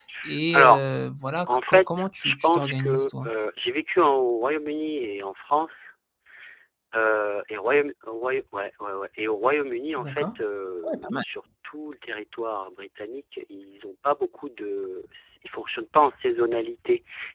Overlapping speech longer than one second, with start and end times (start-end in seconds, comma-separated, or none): 1.5-3.3